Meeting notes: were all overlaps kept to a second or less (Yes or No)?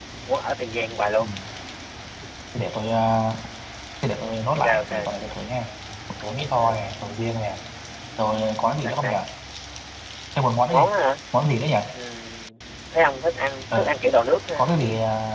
Yes